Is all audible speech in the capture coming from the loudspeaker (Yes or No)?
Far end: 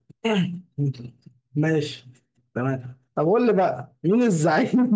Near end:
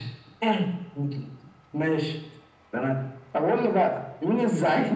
Yes